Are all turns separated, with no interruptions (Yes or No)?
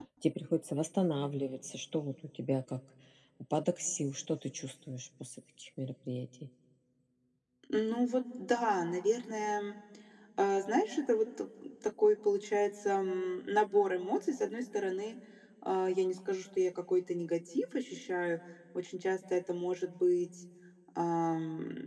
Yes